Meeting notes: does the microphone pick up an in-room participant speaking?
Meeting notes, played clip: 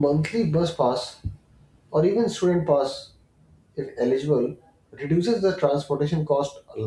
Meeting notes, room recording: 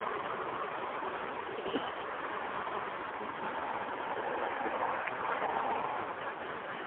No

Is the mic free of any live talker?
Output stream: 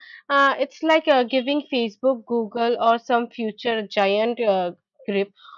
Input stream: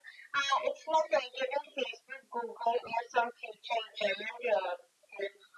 Yes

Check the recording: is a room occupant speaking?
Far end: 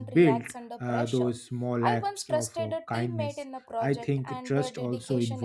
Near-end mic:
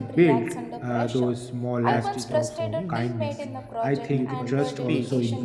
Yes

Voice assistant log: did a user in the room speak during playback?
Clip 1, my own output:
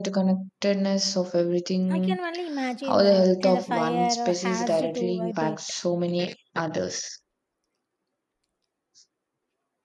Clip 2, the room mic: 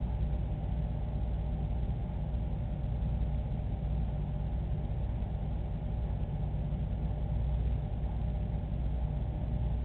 No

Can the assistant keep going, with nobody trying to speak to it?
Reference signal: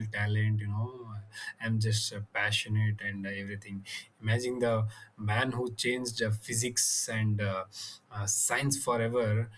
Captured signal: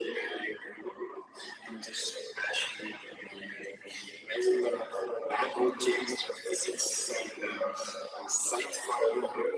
Yes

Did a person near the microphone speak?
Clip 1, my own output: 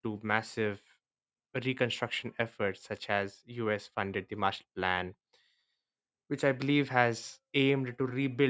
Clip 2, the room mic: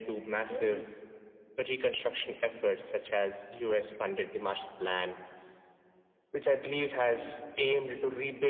Yes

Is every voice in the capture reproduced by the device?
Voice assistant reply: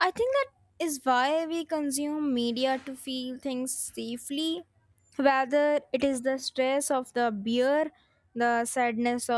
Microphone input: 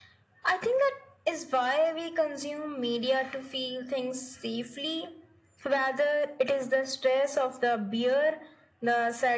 Yes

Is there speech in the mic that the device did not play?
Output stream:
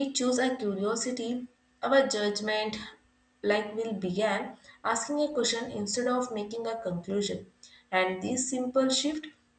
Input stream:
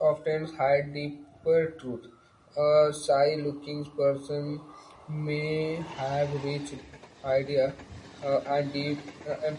Yes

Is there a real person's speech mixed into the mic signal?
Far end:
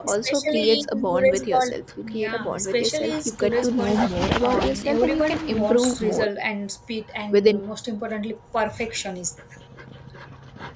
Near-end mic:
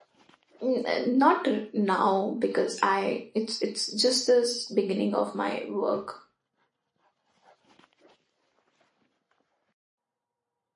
Yes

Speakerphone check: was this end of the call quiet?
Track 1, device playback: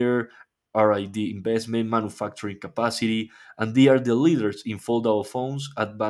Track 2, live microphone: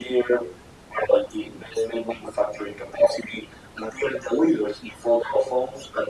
Yes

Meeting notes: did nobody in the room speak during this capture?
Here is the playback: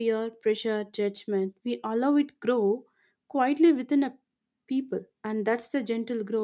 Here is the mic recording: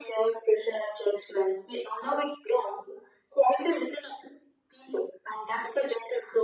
Yes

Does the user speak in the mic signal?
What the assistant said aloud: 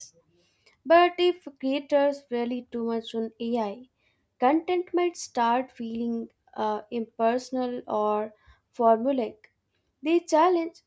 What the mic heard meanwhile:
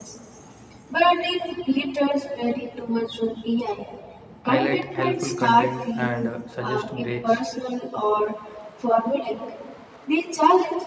Yes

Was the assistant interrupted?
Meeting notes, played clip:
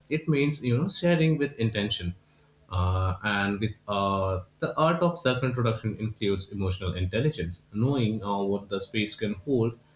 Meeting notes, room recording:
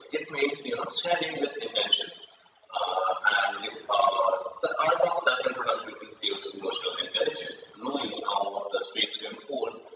No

